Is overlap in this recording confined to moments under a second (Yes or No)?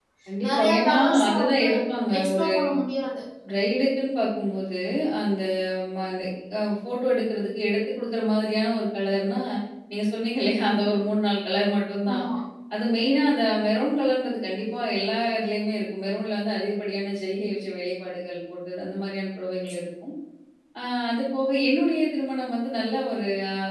No